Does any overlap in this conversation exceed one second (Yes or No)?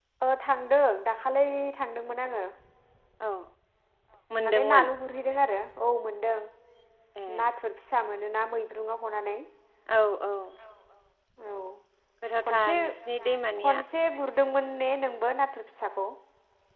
No